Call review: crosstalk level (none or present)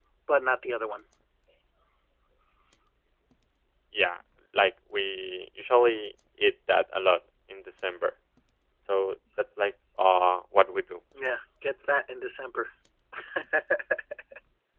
none